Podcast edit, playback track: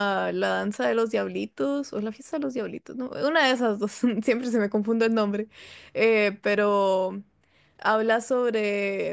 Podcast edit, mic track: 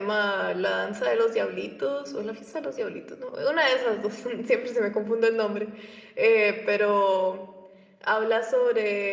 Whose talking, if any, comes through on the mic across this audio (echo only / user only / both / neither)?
echo only